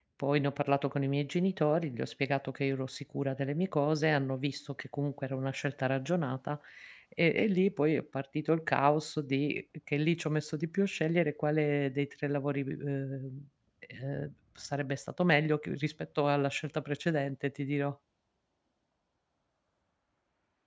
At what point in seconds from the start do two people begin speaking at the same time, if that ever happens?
none

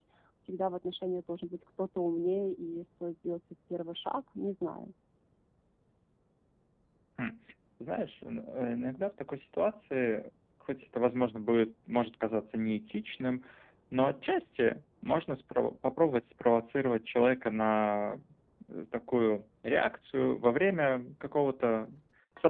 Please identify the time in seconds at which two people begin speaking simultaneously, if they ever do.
none

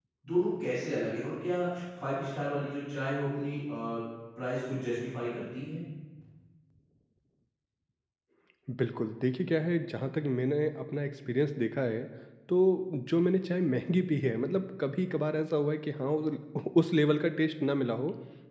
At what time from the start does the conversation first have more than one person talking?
none

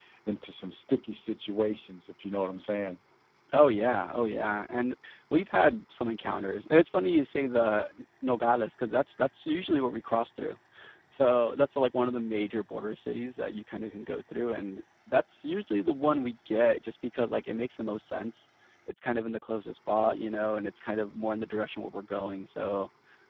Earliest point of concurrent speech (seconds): none

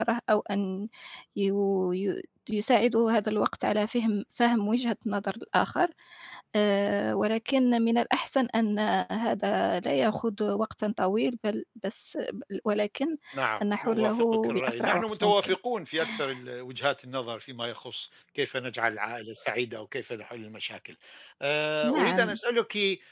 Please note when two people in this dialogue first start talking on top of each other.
13.6 s

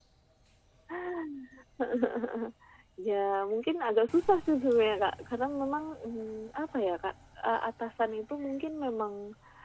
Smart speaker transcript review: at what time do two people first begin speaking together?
none

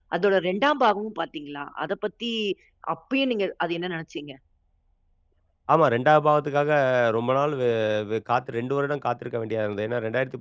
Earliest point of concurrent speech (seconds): none

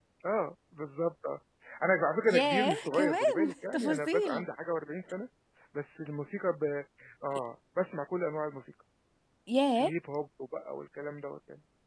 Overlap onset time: 2.3 s

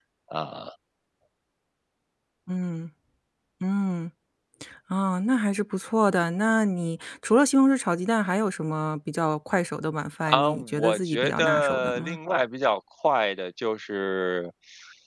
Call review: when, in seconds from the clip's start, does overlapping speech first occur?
10.3 s

